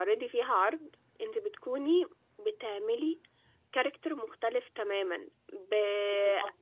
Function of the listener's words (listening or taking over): listening